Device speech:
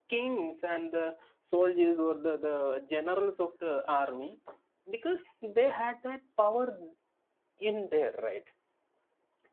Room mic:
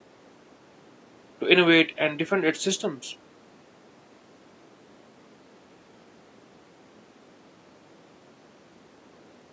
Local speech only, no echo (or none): to innovate and defend its systems?